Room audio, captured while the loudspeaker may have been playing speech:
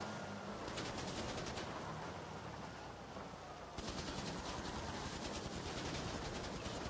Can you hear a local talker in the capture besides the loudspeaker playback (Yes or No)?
No